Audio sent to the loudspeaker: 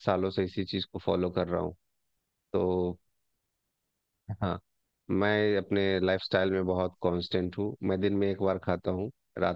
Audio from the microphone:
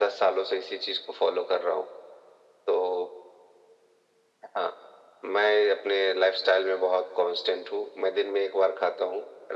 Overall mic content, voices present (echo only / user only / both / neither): echo only